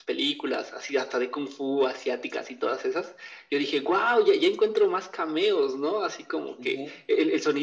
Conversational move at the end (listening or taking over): listening